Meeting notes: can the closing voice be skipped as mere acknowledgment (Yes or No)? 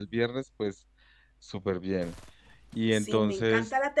No